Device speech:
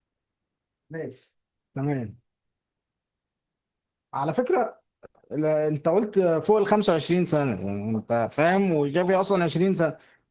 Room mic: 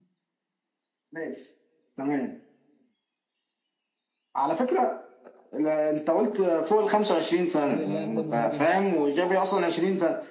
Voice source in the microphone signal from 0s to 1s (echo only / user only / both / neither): neither